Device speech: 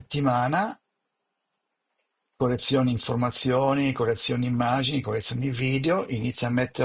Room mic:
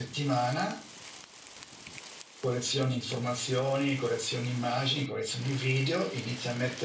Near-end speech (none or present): none